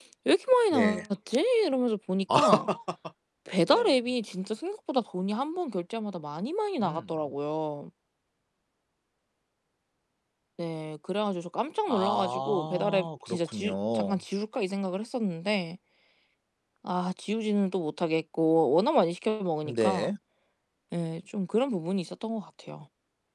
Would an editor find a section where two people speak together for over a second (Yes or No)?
Yes